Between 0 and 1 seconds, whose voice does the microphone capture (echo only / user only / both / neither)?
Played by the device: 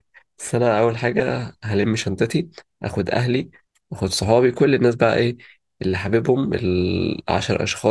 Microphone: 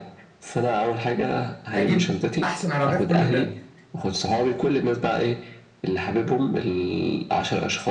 echo only